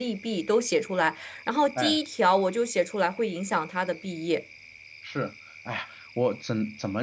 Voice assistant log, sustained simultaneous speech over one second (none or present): none